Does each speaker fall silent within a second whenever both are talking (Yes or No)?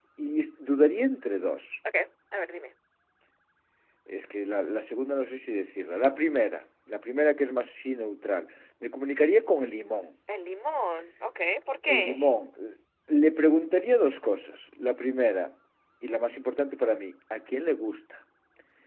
Yes